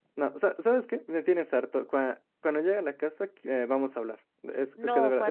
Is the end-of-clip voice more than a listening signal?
Yes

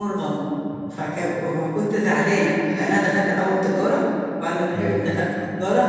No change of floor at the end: Yes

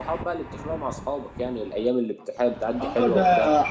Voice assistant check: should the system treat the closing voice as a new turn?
Yes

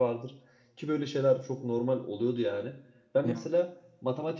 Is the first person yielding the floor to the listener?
No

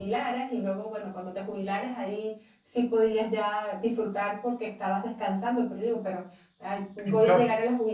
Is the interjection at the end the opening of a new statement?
No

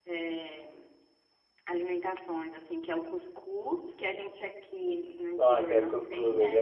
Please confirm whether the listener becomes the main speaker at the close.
Yes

